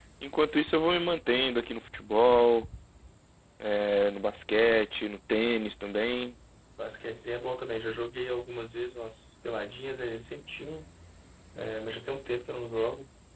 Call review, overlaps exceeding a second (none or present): none